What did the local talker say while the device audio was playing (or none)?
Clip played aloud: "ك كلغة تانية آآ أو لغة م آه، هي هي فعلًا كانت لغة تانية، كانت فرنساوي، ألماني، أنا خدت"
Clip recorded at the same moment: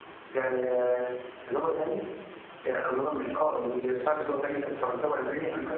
none